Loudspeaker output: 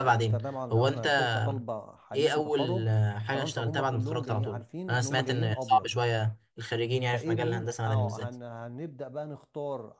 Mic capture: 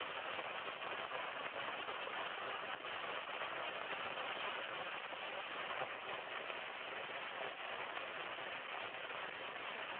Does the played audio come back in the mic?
No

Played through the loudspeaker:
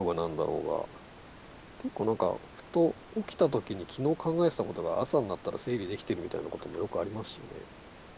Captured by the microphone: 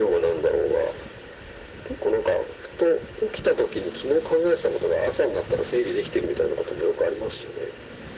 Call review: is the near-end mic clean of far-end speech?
No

